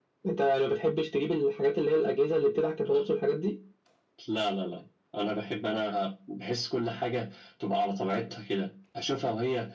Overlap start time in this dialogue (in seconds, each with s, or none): none